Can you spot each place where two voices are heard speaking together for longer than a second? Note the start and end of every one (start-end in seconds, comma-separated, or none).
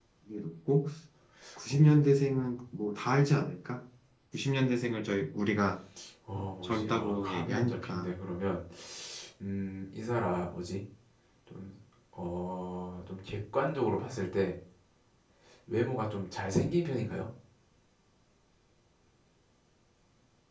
6.6-8.1